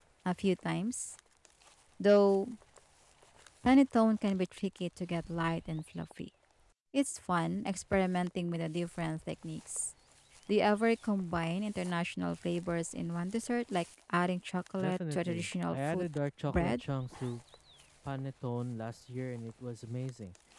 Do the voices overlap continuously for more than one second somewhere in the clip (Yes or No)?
Yes